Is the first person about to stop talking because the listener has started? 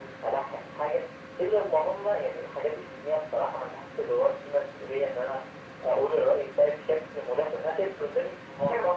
No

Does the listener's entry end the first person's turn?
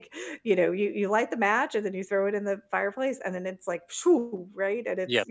Yes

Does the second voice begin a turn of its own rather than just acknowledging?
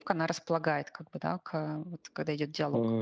Yes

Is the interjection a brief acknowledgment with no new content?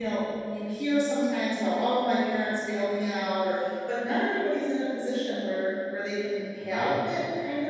Yes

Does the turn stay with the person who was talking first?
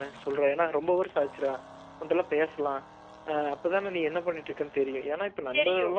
Yes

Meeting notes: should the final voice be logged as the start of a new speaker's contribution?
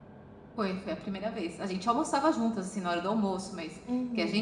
No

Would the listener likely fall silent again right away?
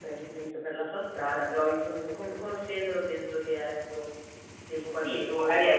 No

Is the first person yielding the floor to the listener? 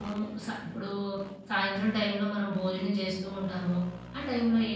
No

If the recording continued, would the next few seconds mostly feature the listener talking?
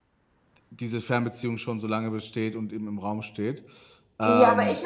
Yes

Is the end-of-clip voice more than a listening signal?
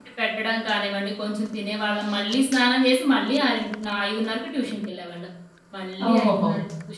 No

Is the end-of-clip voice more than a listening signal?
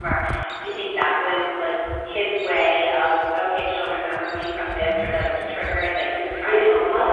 Yes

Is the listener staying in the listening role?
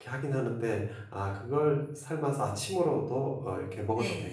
No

